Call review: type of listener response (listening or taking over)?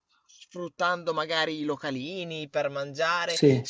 listening